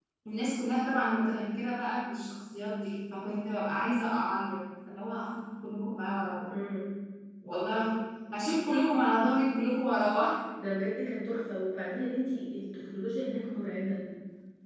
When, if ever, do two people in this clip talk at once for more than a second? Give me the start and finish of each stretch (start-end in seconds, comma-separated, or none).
none